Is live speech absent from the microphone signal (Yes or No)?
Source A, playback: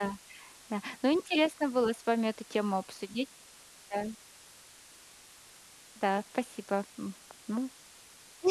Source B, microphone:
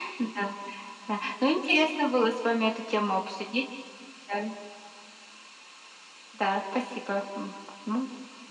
Yes